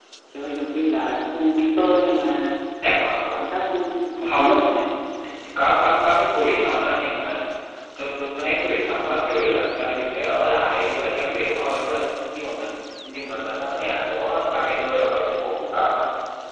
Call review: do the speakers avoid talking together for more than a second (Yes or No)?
Yes